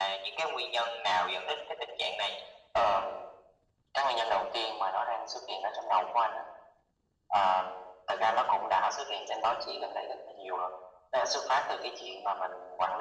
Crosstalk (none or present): none